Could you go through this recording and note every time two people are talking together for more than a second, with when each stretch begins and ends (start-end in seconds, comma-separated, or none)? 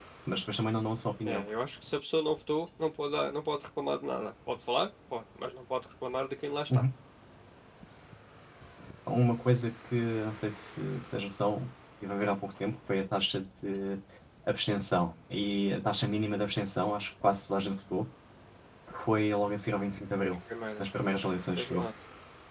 none